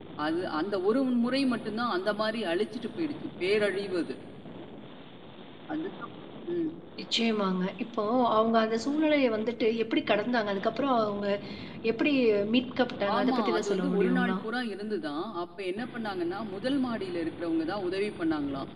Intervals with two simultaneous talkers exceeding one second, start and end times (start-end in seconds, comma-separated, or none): 13.2-14.4